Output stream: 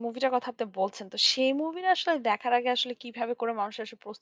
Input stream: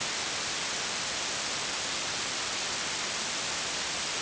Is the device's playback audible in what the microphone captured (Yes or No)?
No